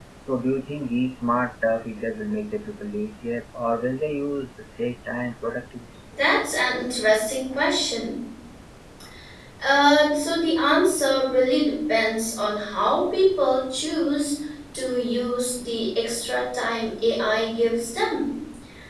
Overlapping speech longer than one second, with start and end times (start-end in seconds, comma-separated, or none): none